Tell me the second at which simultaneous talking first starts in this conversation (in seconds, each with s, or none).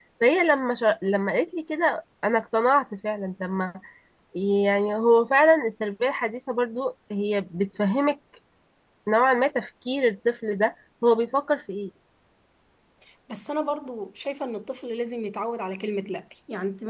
none